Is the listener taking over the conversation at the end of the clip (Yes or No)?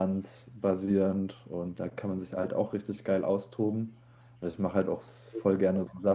No